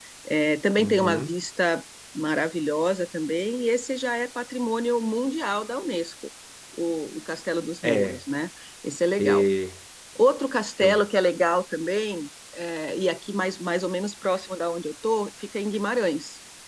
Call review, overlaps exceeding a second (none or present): none